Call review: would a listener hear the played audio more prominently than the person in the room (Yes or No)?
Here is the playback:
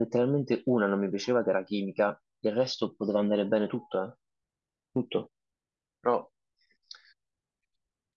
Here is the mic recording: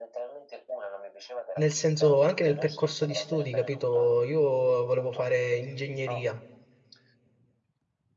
No